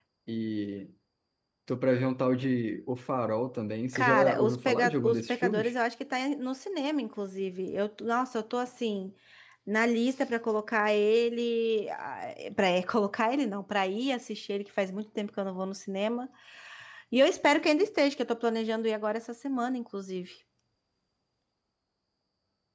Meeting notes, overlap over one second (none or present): present